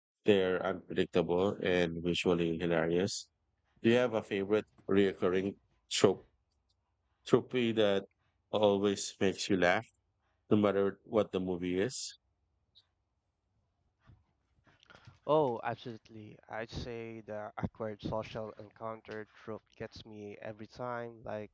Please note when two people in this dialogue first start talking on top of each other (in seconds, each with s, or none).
none